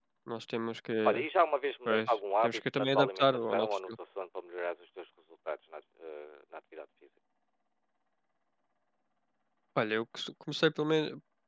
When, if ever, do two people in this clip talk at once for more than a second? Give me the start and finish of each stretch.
1.9-3.9

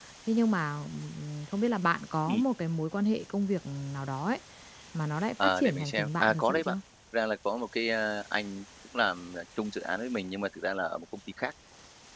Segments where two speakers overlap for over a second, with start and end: 5.4-6.8

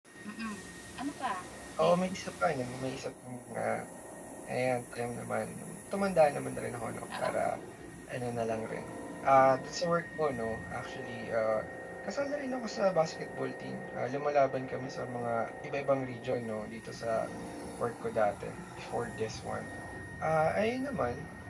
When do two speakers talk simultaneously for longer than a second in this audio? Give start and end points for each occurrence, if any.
none

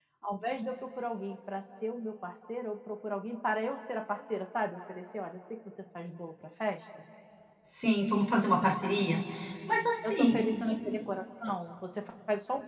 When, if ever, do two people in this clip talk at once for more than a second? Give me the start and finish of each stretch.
none

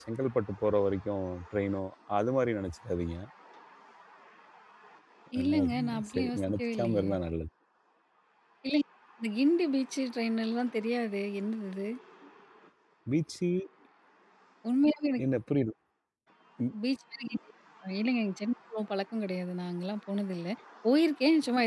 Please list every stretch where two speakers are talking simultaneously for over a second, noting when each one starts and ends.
5.5-7.1

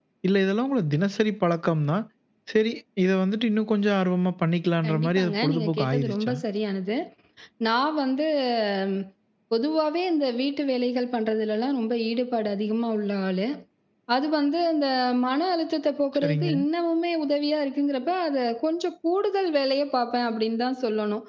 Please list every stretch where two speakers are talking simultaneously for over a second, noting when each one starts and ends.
4.8-6.3

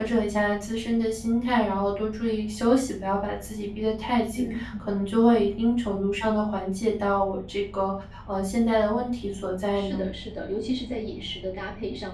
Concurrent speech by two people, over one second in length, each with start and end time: none

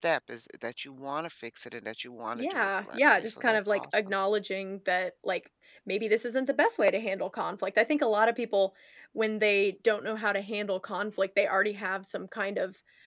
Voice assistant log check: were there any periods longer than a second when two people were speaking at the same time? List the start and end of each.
2.4-4.2

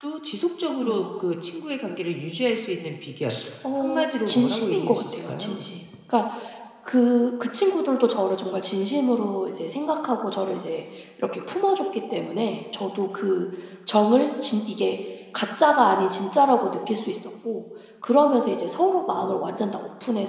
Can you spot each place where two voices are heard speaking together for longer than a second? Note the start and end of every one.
3.8-5.6

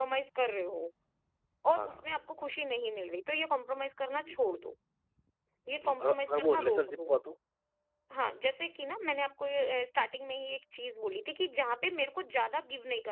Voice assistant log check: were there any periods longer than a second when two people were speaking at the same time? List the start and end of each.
5.8-7.1

